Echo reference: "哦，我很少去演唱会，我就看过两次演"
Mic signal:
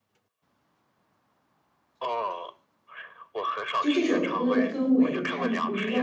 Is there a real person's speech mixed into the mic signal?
Yes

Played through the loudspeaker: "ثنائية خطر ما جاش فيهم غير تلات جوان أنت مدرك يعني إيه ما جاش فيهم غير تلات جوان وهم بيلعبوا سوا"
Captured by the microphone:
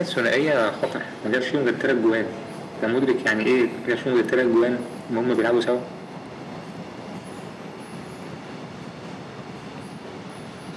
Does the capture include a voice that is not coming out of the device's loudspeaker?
No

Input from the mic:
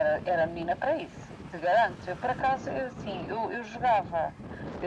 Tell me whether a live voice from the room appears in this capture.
No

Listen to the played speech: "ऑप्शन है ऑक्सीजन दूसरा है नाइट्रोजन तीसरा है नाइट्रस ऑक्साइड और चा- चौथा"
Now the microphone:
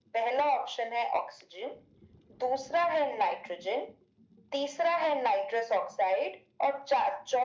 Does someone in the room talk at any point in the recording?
No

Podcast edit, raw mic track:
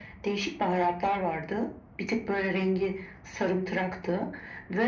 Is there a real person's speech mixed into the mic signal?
No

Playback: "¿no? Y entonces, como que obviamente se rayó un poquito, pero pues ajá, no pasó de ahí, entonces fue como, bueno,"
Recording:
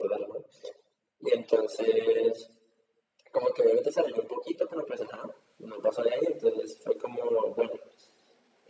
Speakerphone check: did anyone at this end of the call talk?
No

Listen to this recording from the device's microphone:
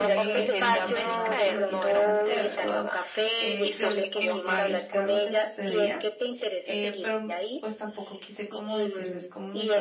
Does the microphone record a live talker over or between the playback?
Yes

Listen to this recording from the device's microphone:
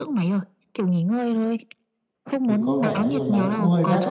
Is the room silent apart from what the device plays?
No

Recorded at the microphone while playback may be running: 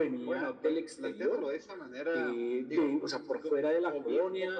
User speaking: No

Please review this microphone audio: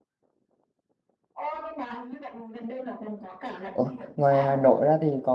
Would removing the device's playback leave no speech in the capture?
No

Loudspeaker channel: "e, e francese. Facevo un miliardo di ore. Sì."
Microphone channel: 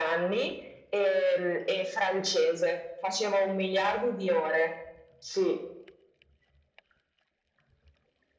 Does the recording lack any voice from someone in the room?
Yes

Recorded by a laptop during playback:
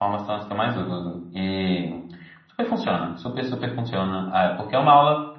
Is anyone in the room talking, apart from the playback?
Yes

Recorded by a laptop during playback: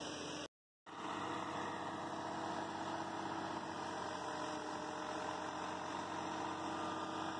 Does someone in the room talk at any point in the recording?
No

